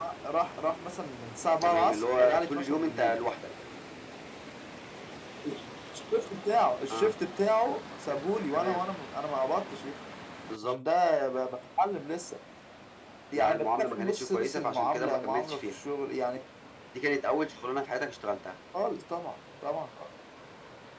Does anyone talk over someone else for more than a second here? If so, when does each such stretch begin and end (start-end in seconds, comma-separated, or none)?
1.6-3.1, 13.3-15.8